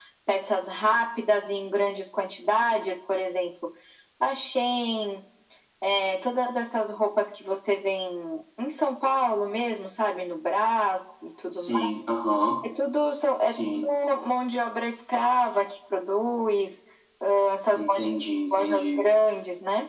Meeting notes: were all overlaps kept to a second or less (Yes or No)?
Yes